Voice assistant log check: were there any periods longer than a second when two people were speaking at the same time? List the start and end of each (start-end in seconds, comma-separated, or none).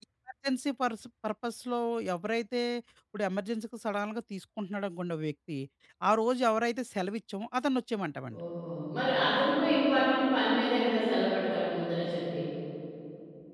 none